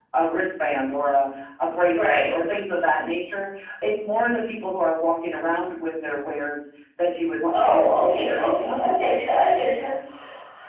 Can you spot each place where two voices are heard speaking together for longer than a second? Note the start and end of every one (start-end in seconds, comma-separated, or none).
7.5-8.9